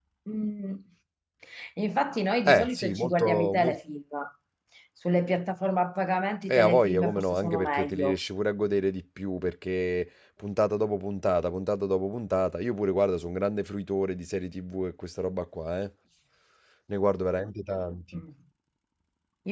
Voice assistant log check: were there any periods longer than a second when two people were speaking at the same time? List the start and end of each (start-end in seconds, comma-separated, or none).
2.5-3.8, 6.5-8.2